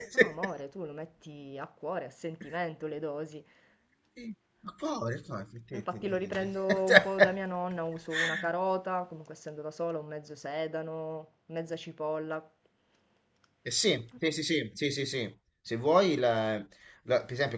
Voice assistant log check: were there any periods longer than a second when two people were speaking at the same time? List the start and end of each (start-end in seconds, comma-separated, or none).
5.7-7.4